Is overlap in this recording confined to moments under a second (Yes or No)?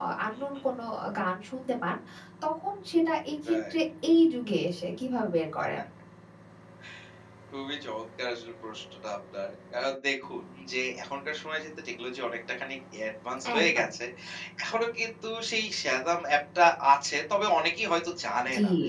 Yes